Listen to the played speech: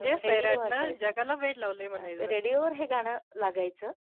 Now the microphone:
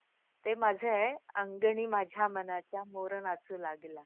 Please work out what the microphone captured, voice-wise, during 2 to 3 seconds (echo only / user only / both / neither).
user only